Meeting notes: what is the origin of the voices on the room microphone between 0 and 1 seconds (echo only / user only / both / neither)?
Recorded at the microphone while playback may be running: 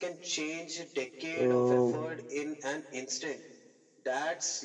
echo only